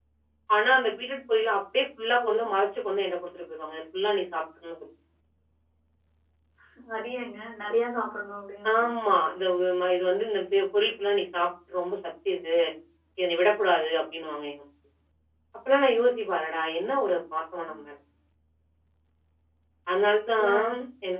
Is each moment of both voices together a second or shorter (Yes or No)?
Yes